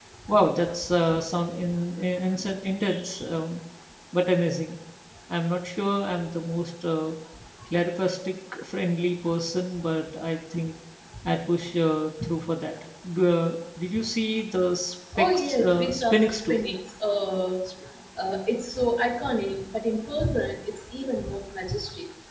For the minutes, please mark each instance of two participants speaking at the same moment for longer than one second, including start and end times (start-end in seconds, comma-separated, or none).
15.2-16.6